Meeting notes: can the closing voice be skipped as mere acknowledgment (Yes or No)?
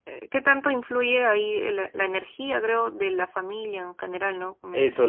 No